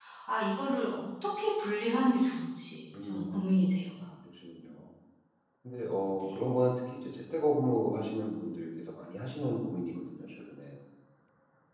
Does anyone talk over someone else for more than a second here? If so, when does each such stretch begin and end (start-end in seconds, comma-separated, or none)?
none